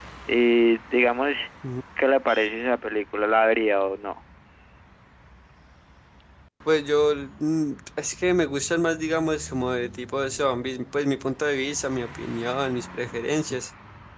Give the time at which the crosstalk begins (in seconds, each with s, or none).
none